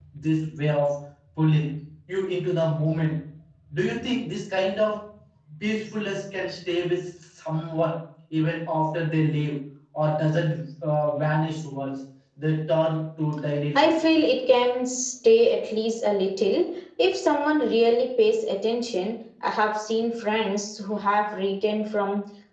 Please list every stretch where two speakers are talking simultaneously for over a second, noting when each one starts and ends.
none

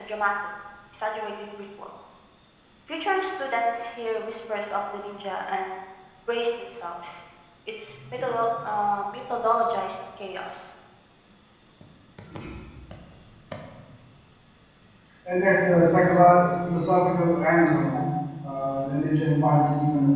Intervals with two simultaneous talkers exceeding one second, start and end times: none

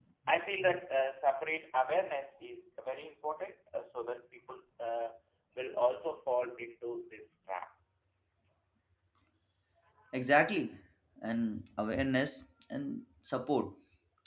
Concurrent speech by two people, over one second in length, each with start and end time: none

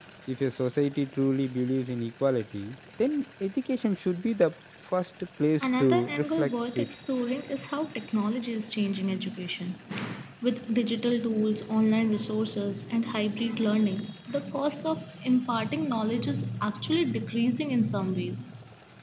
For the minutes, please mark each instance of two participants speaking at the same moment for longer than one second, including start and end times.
5.6-6.9

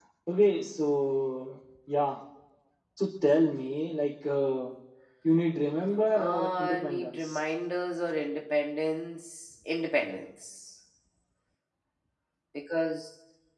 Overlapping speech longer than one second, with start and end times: 6.1-7.4

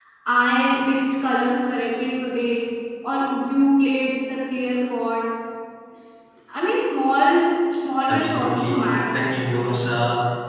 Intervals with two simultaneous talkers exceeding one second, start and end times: 8.1-9.8

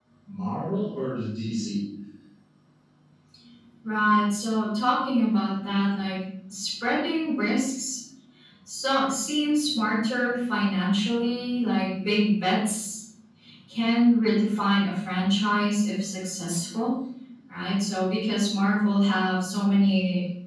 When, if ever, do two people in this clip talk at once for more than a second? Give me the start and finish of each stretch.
none

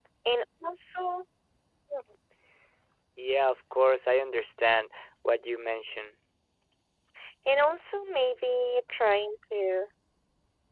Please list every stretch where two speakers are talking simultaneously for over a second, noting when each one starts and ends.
none

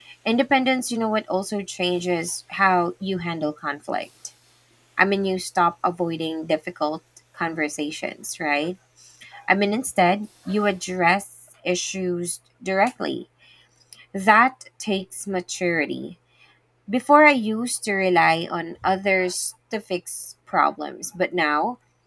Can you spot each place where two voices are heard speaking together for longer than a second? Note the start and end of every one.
none

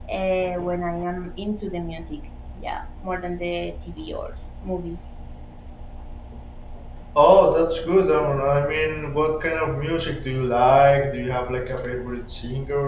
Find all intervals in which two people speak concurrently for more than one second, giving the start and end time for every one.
none

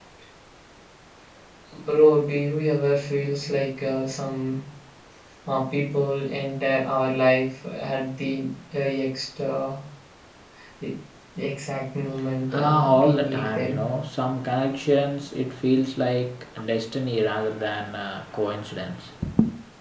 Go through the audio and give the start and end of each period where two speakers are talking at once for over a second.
12.5-13.8

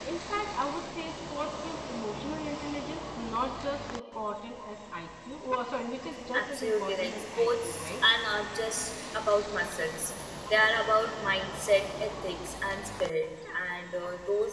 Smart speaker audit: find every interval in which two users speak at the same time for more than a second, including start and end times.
6.3-8.0

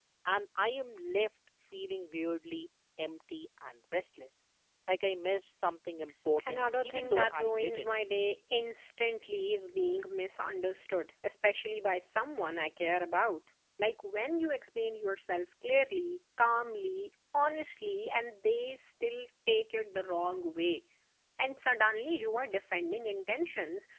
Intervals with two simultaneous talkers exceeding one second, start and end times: 6.5-7.9

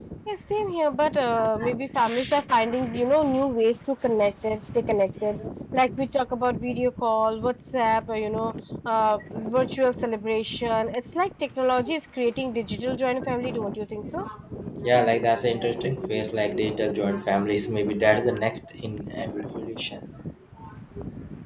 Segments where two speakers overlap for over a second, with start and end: none

